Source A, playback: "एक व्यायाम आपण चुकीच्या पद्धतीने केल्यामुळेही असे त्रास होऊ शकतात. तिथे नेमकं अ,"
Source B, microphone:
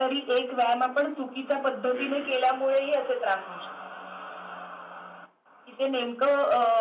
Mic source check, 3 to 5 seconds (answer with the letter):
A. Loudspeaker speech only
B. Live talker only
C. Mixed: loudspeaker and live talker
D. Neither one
A